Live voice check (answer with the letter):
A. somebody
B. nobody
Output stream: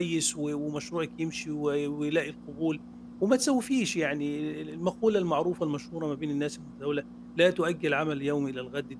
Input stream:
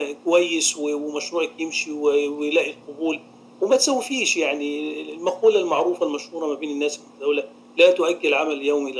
B